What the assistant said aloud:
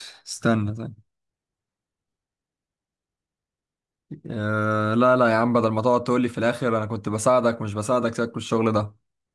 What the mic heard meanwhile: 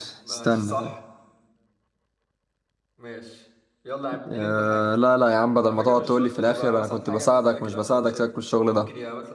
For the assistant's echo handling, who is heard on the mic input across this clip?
both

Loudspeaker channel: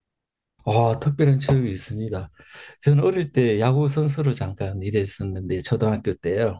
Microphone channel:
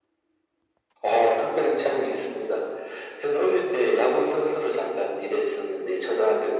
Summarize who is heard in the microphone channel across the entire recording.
echo only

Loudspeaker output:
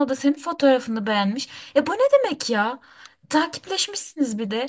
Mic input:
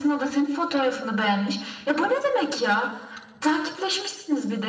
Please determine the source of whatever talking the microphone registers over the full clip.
echo only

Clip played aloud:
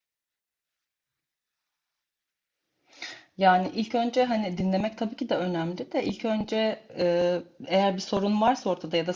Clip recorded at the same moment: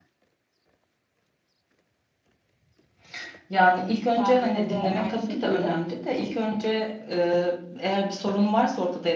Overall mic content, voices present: both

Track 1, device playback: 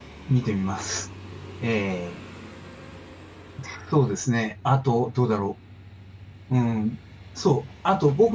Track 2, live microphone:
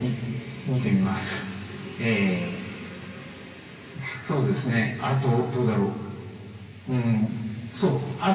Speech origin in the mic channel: echo only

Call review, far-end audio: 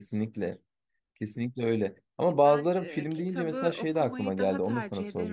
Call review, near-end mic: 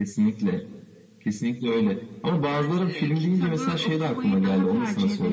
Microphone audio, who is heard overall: echo only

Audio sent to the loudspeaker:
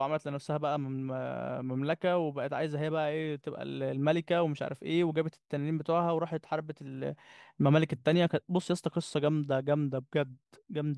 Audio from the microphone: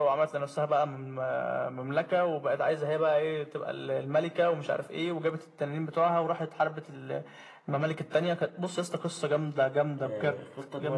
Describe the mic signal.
both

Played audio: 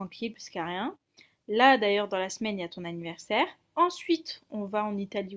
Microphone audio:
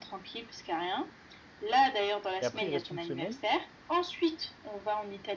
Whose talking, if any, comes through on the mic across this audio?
both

